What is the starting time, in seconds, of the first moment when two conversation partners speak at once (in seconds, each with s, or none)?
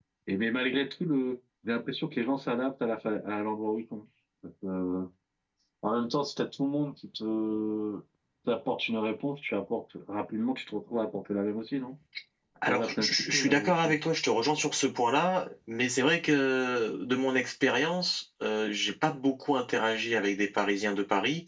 12.7 s